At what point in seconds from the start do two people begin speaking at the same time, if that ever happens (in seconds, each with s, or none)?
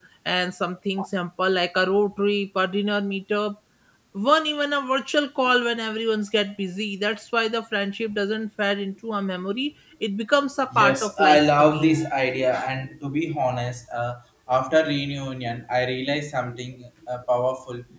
10.7 s